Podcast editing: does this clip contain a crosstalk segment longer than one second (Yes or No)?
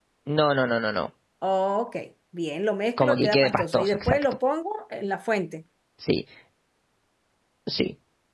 Yes